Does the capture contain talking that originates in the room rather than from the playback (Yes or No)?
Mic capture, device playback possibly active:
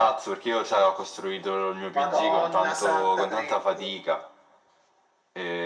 No